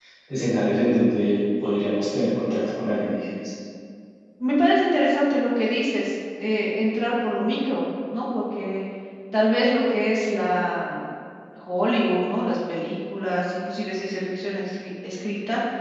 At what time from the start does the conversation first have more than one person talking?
none

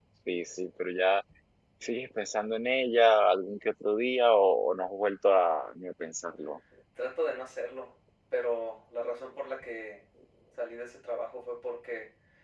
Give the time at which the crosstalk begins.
none

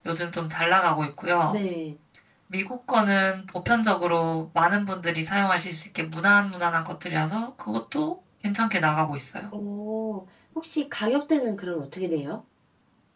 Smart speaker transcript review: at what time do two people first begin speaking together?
none

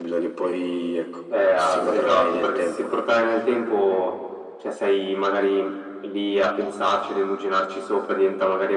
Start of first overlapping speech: 1.6 s

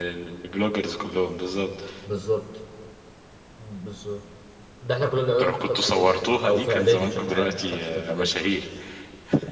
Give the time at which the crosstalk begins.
5.4 s

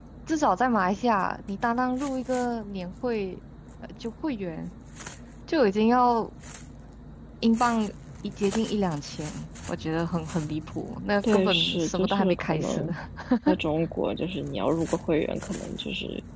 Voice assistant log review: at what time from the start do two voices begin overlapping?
11.3 s

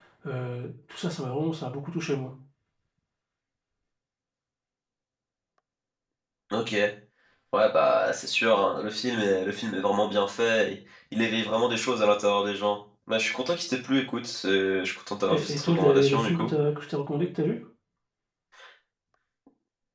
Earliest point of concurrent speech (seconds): 15.3 s

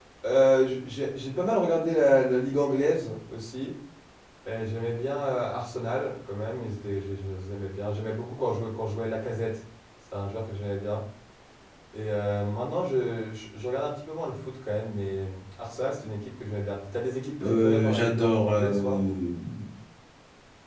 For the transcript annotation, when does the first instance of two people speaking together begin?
17.4 s

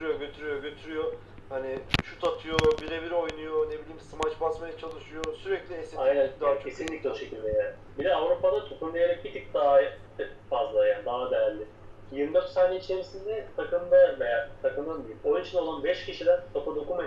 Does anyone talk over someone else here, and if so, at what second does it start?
6.0 s

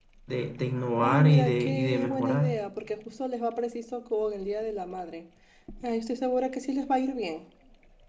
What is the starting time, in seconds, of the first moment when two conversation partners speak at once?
1.0 s

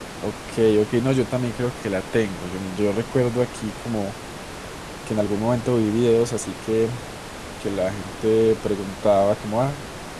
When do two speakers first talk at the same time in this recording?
none

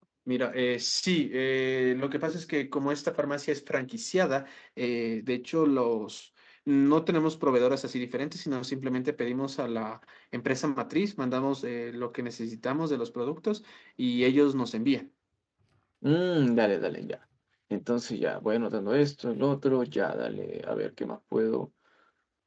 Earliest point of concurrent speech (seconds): none

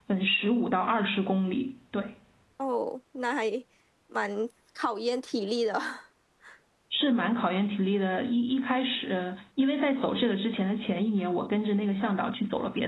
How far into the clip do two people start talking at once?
none

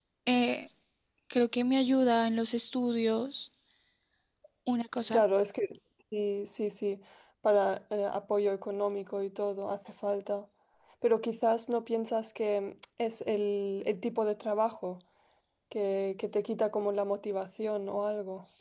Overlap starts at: none

